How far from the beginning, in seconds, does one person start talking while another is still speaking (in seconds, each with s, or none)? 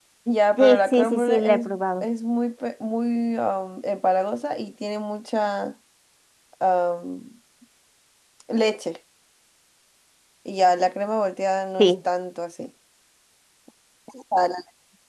0.6 s